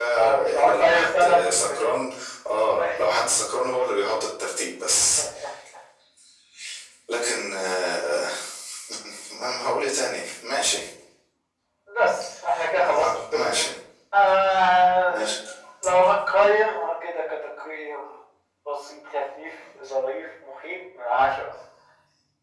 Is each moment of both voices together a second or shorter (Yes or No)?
No